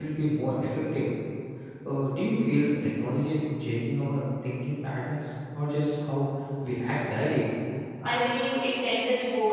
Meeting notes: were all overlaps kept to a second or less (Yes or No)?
Yes